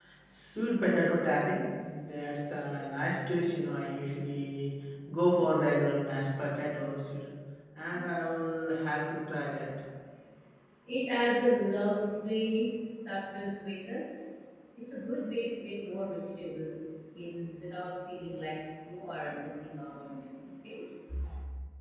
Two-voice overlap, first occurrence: none

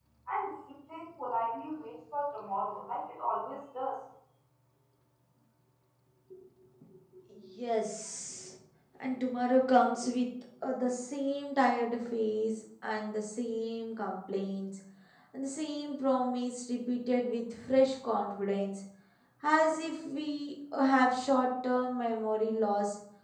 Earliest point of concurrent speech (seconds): none

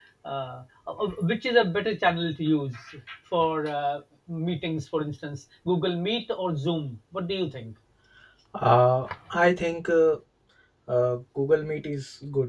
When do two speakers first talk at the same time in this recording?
none

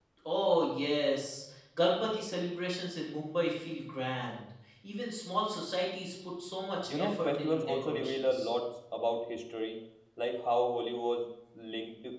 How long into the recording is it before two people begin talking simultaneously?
7 s

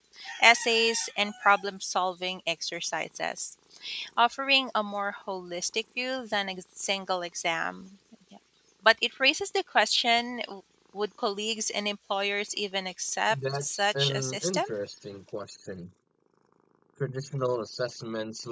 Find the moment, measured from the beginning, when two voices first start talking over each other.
13 s

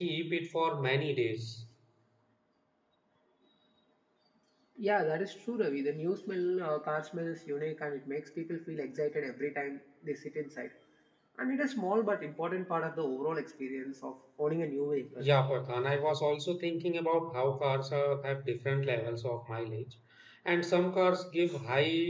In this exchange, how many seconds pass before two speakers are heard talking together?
none

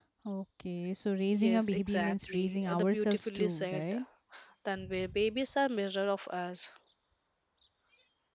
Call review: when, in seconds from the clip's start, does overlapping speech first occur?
1 s

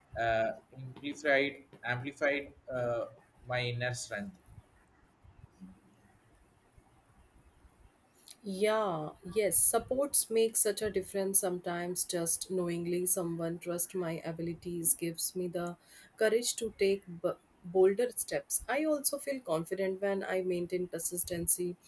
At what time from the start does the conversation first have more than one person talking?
none

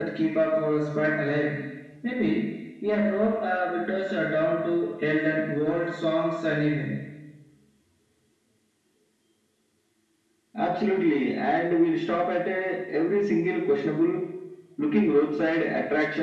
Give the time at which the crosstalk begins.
none

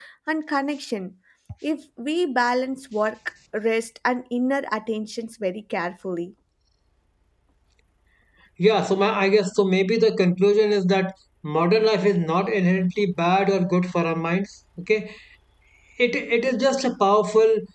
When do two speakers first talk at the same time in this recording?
none

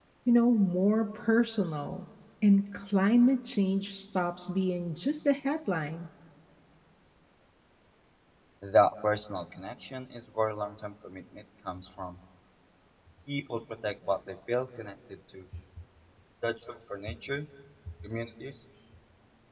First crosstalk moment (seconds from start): none

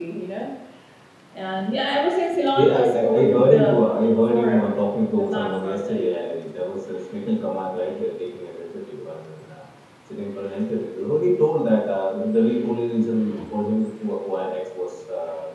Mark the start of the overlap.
2 s

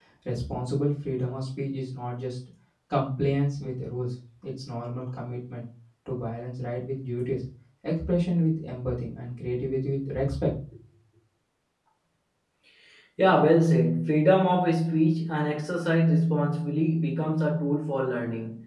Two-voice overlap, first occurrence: none

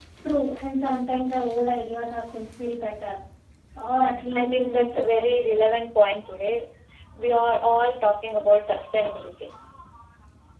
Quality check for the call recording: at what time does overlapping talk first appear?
4 s

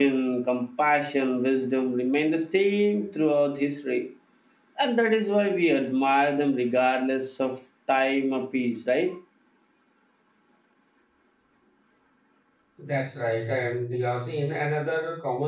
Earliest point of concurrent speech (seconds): none

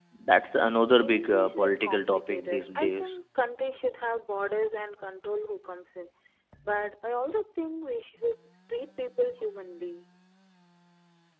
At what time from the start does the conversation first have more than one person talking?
1 s

